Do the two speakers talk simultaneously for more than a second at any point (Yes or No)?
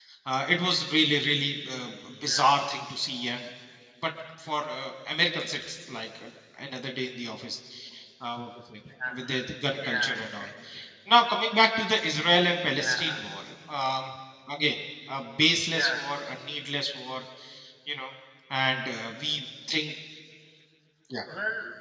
Yes